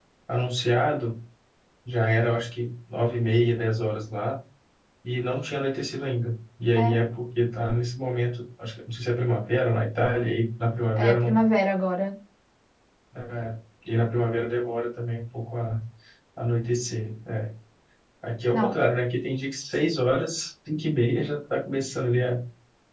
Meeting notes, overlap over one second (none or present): none